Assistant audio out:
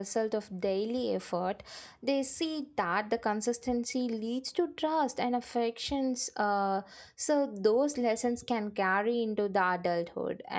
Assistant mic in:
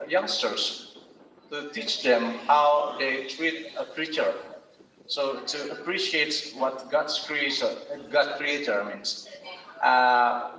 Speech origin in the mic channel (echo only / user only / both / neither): user only